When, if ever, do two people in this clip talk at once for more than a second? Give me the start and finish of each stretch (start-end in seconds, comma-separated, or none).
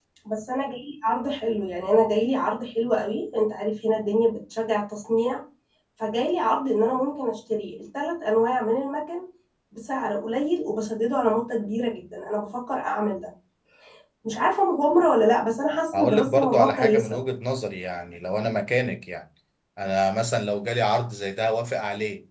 16.0-17.2